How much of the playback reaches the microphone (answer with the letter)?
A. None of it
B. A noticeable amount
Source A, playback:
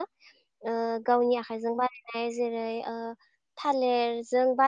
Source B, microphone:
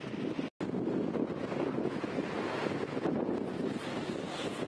A